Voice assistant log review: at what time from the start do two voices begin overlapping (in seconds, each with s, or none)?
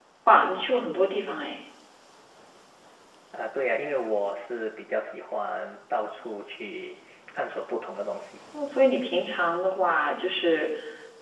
none